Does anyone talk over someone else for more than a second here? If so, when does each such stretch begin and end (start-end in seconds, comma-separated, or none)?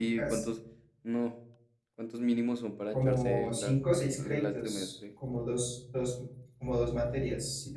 2.9-4.9